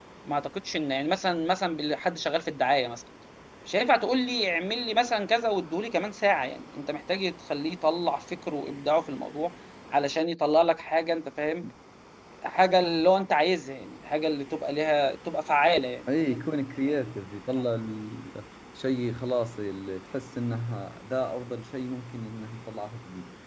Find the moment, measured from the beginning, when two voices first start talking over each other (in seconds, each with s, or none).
none